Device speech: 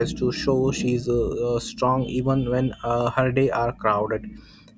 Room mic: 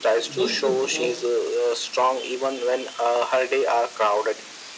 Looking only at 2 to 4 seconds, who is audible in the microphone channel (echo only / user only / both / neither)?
echo only